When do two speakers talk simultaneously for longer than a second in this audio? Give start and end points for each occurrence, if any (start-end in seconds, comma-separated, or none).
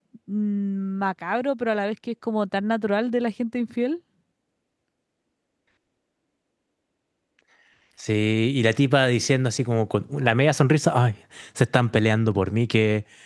none